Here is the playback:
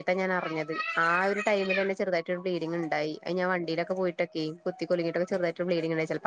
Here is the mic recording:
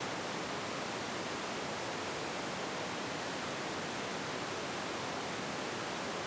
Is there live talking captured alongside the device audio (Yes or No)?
No